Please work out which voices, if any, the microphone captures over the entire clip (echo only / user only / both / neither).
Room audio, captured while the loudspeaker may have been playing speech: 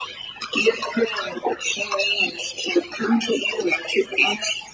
echo only